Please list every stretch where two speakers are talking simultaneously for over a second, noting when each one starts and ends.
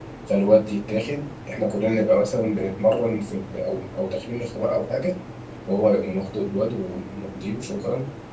none

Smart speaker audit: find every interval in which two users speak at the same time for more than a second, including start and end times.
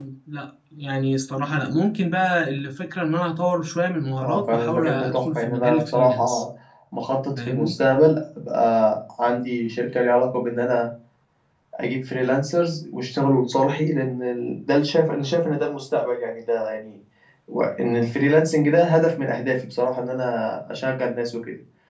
4.2-6.4

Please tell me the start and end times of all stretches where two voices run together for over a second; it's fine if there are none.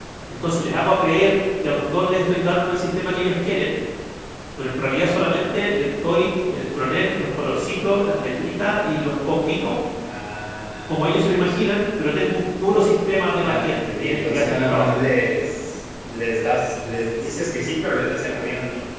13.4-15.0

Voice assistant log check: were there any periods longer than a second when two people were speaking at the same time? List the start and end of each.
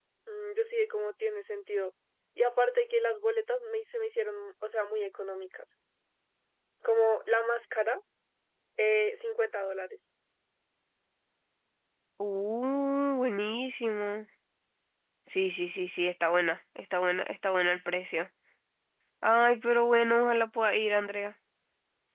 none

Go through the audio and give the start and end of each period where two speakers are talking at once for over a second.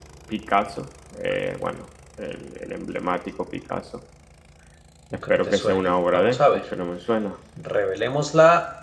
5.3-6.6

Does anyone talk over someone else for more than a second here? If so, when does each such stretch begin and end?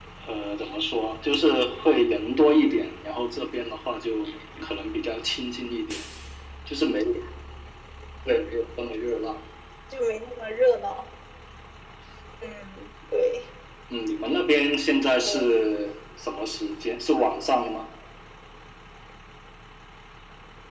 none

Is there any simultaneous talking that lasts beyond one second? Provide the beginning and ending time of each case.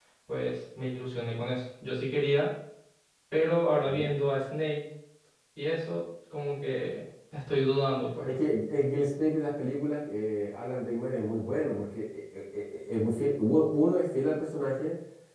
none

